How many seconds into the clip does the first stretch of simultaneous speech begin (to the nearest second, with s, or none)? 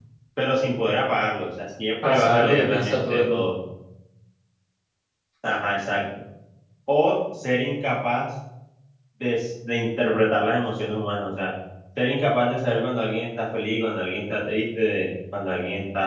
2 s